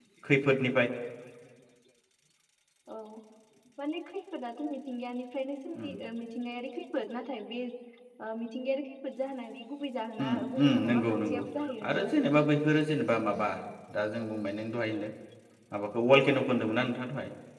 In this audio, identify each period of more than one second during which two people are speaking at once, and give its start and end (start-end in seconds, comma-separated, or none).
10.2-11.4